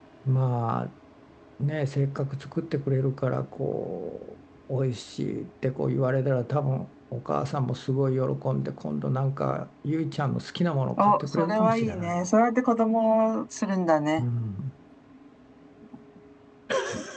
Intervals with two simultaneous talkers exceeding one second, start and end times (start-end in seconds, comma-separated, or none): 11.0-12.3